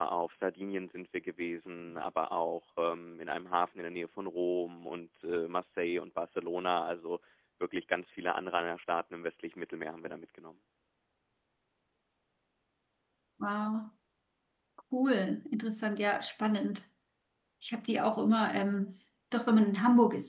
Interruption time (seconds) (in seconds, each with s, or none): none